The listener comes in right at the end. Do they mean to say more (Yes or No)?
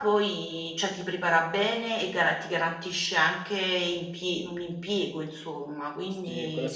Yes